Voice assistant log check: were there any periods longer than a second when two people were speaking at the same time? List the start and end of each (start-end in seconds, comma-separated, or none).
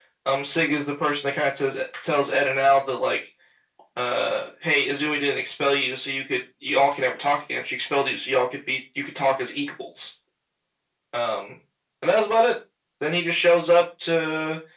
none